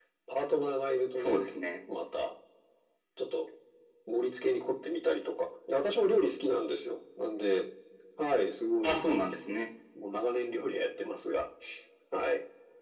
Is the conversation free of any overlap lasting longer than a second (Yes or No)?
Yes